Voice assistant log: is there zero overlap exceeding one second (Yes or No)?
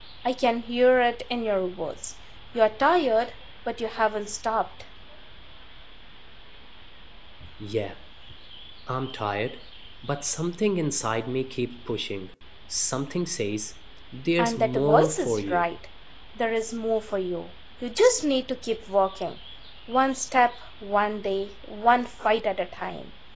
No